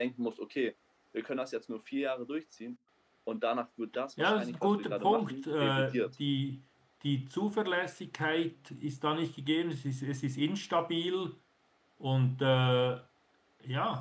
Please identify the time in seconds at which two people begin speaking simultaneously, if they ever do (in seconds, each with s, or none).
4.2 s